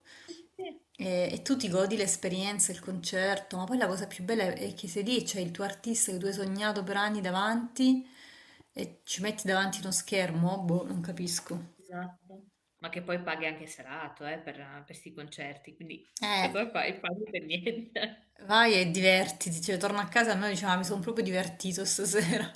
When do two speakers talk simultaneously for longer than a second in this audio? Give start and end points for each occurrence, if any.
none

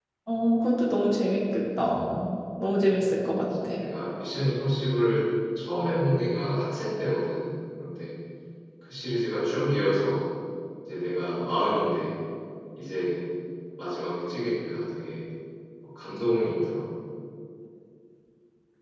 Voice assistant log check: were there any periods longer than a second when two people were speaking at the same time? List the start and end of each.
none

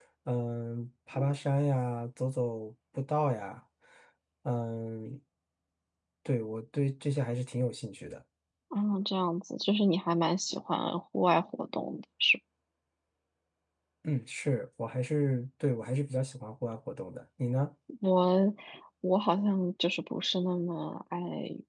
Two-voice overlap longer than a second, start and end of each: none

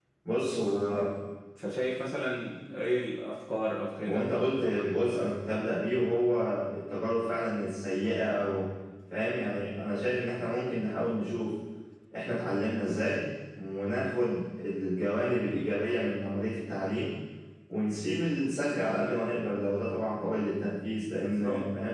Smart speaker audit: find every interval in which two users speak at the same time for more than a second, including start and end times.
none

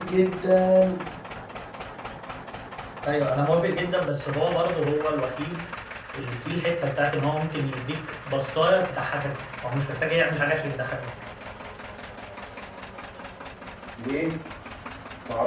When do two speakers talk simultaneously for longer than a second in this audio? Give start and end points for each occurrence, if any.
none

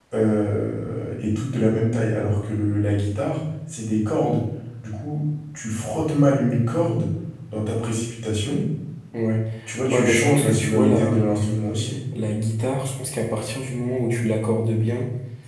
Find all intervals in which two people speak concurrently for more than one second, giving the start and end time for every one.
9.9-11.6

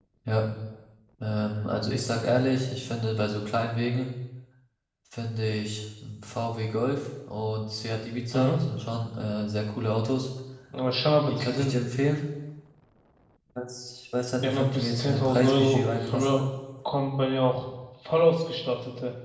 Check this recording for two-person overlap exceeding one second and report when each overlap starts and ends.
14.4-16.5

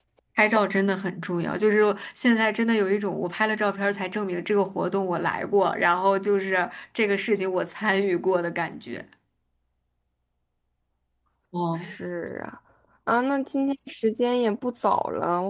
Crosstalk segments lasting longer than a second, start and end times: none

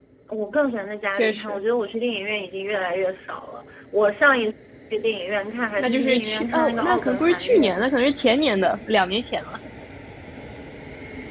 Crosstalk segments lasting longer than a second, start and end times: 5.8-7.7

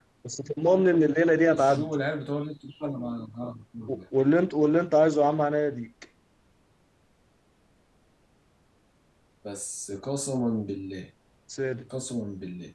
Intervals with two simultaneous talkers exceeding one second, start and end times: none

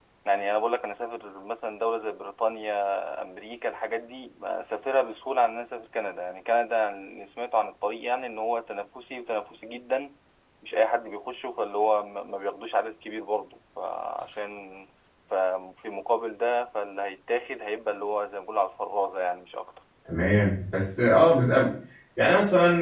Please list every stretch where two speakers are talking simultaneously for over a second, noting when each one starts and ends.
none

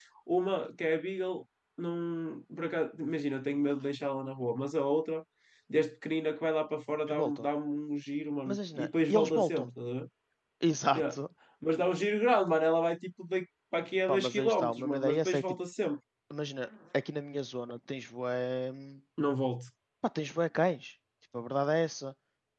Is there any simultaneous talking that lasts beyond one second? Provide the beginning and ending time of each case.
8.5-9.7, 14.1-15.4

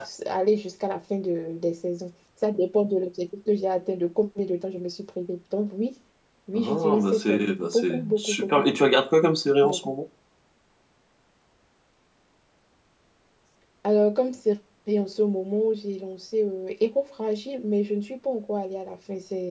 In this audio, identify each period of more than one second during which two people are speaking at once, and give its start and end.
6.5-8.7

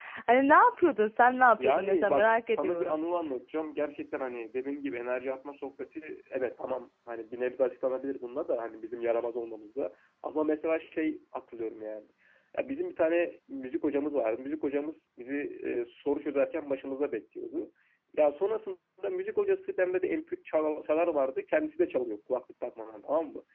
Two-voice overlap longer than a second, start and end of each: 1.6-3.0

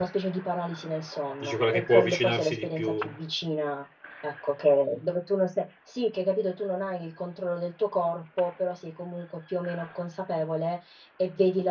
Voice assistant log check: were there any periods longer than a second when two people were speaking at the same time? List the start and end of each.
1.4-3.0

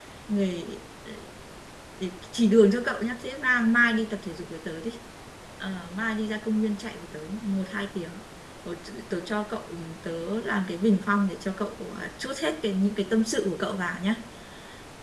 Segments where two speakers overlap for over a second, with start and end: none

